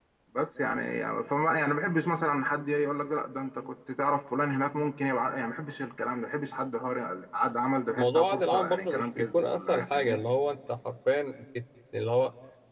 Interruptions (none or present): present